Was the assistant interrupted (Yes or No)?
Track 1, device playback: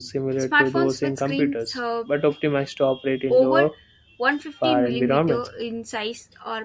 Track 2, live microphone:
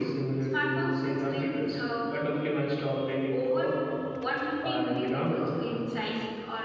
No